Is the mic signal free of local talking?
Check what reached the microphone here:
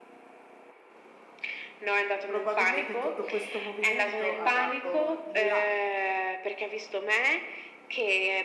No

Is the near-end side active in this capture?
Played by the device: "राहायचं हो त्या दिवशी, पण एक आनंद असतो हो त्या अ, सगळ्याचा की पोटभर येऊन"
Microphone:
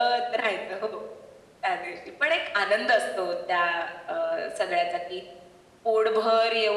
No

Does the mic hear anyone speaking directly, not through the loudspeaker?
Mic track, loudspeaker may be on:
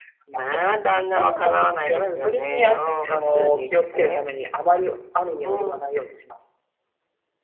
Yes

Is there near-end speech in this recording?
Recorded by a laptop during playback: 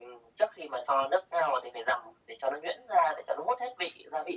No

